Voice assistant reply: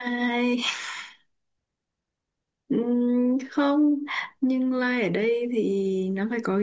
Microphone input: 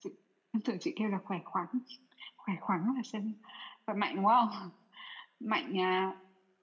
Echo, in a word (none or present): none